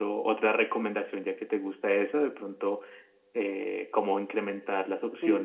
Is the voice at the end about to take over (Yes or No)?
Yes